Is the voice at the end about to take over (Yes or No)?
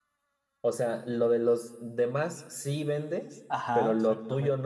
Yes